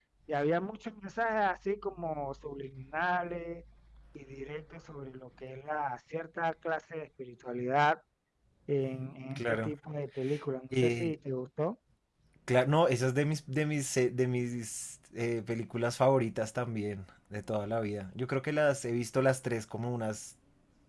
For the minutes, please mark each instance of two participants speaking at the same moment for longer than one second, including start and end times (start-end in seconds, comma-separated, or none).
none